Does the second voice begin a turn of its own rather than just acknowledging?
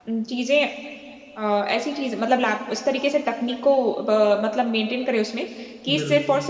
No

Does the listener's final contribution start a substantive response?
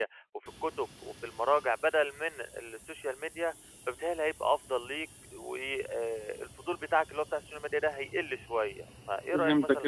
Yes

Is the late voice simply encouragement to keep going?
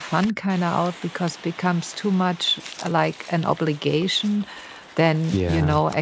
Yes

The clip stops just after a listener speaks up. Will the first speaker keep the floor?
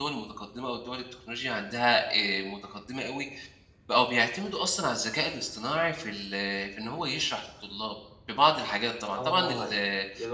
No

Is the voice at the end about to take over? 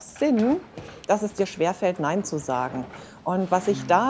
No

